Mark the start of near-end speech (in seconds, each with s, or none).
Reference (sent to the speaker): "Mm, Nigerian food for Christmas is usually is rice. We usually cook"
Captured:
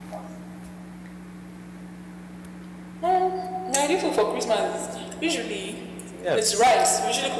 6.1 s